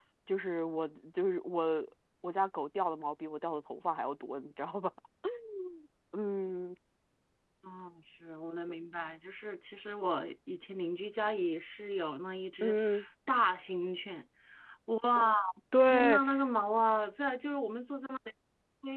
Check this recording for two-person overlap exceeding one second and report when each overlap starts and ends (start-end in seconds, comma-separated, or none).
none